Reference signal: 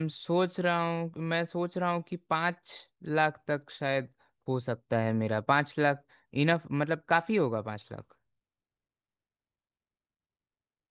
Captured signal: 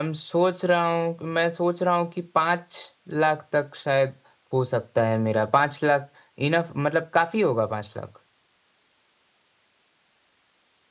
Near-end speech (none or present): none